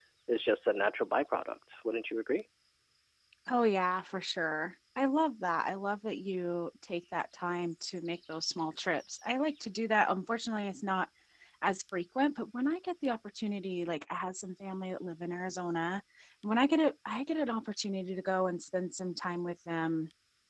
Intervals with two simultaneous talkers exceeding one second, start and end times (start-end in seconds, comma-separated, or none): none